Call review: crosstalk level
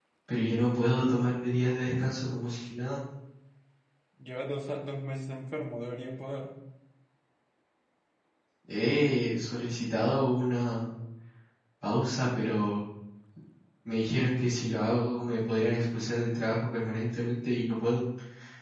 none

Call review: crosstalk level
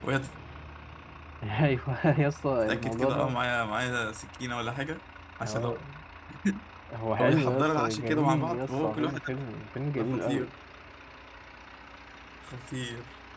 present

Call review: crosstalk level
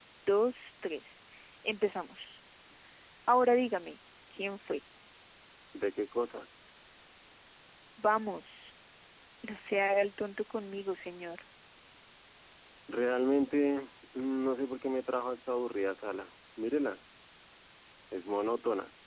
none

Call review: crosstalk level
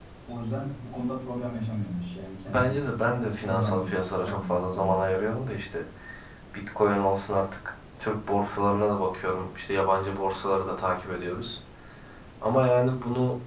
present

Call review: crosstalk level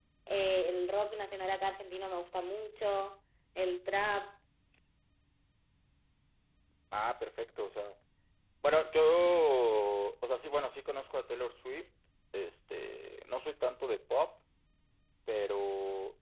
none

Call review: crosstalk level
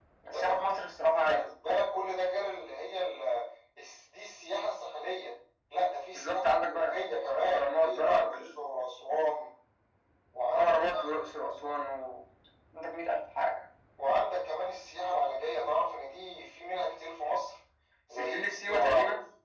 present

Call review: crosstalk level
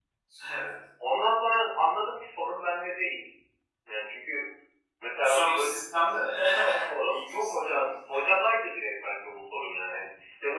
present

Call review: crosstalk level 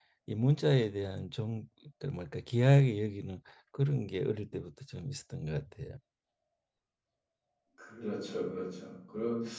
none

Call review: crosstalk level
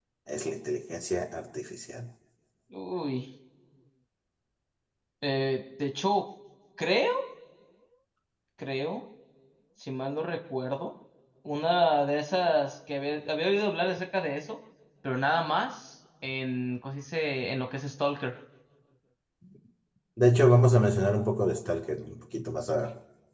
none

